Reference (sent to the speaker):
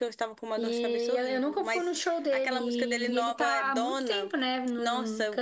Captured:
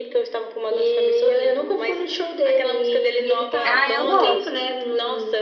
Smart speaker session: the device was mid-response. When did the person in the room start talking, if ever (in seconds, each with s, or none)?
3.6 s